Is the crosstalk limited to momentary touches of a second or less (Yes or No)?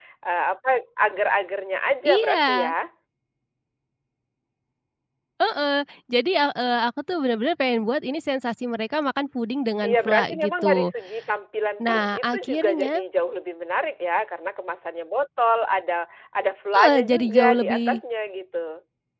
No